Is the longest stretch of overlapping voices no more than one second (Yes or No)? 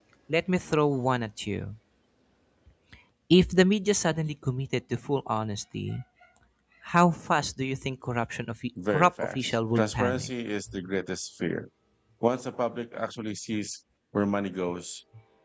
No